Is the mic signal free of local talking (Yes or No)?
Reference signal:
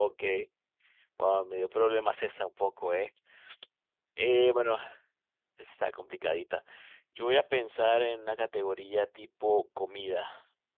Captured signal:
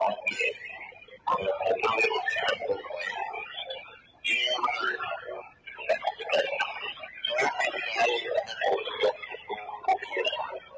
Yes